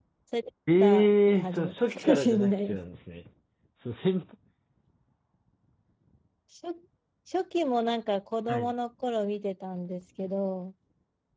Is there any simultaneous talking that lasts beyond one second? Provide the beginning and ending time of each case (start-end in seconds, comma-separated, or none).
0.8-2.8